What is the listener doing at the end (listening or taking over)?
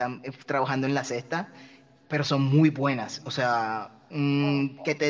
listening